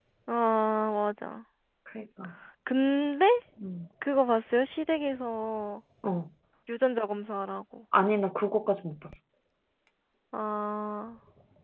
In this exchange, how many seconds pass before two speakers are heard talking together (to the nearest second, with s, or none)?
none